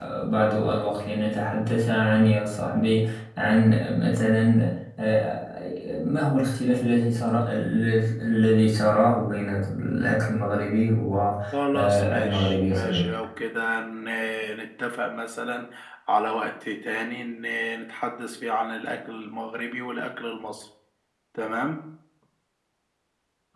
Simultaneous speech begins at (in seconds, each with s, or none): 11.5 s